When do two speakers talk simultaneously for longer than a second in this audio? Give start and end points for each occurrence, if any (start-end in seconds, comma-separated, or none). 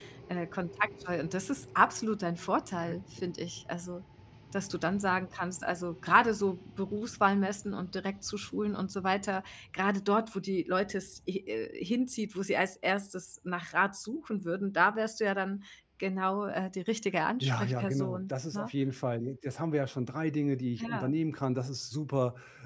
17.4-18.7